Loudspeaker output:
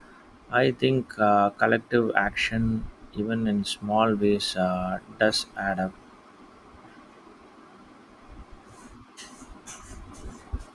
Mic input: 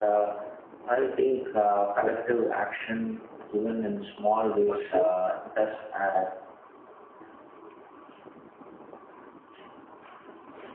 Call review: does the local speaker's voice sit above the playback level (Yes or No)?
No